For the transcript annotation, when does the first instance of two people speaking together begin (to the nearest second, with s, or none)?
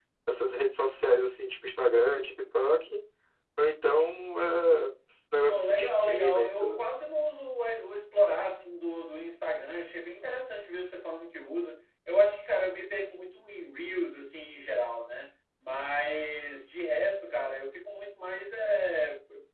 5 s